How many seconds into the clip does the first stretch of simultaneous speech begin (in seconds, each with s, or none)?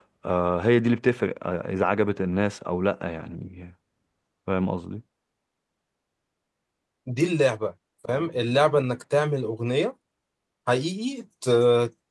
none